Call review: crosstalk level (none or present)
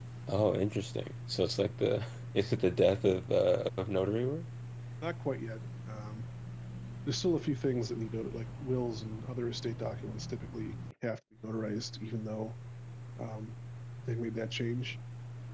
none